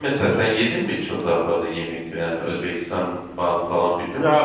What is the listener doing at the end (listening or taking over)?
taking over